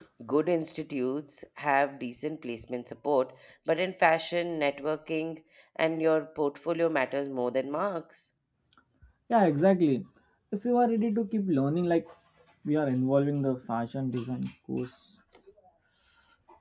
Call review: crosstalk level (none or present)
none